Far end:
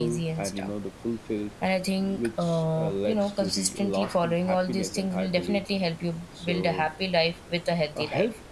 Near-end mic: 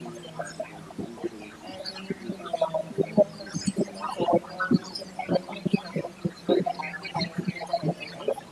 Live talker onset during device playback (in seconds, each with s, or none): none